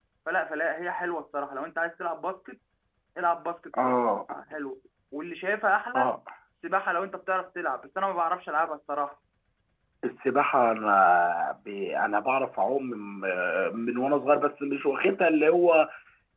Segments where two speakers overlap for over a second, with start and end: none

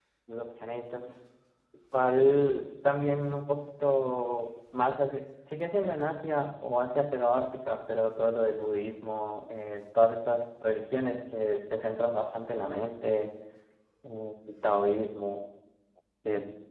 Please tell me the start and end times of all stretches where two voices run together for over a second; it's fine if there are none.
none

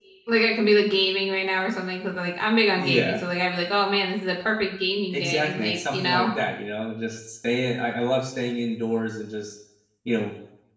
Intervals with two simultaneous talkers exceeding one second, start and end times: 5.1-6.3

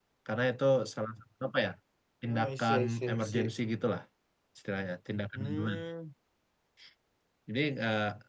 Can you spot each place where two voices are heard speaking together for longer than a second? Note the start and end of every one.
2.3-3.5

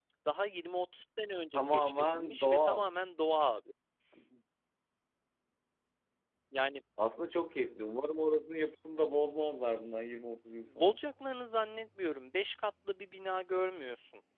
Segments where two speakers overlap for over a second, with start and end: 1.6-2.8

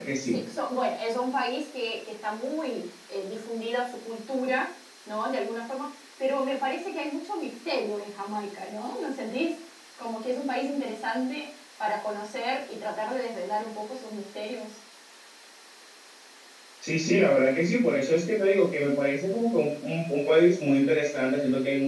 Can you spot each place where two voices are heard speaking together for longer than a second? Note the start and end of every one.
none

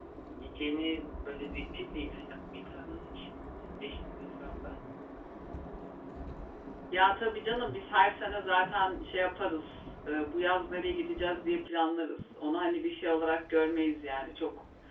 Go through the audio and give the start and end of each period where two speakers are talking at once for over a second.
none

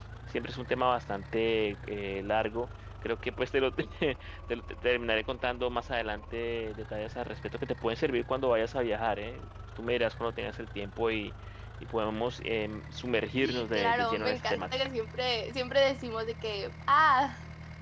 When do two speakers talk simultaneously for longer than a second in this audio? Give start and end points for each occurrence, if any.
13.4-14.8

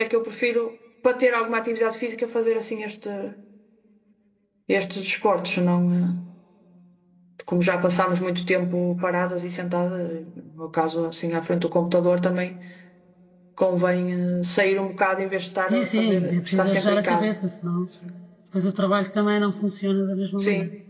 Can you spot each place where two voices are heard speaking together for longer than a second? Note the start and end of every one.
15.7-17.3

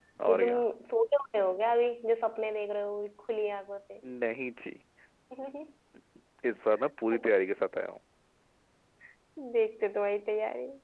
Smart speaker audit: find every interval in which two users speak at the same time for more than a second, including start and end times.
none

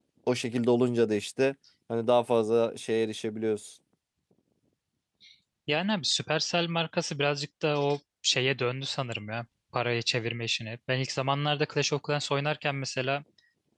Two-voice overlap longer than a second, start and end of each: none

